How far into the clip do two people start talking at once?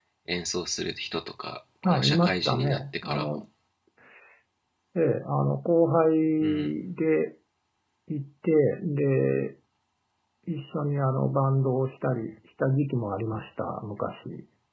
1.8 s

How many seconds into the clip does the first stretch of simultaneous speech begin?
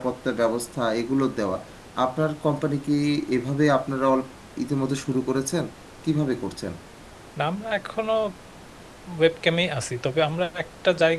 none

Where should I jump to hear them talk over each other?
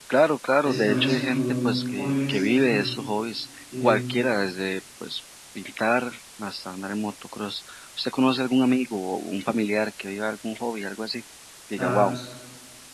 0.6 s

